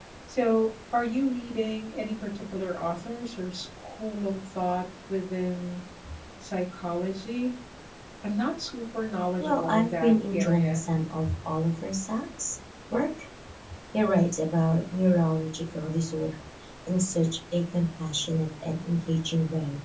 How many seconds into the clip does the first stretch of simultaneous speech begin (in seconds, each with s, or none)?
9.4 s